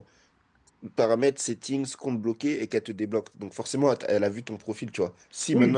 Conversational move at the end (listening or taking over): taking over